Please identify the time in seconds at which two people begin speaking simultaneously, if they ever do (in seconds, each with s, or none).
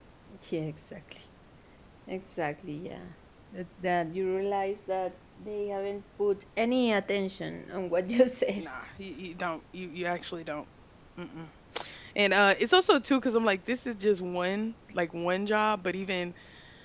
none